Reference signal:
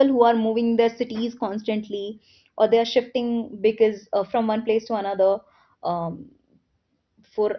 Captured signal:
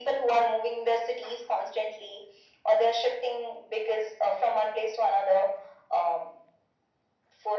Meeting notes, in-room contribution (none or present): none